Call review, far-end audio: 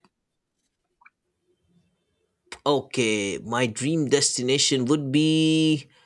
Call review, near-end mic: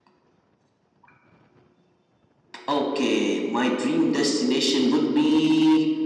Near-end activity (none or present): none